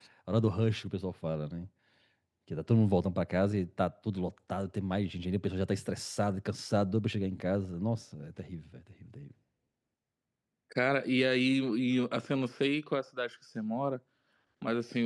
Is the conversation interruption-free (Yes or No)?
Yes